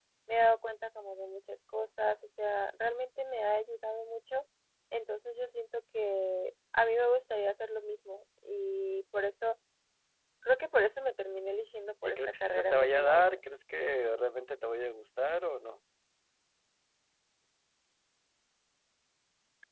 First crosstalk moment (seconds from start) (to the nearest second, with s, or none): 12 s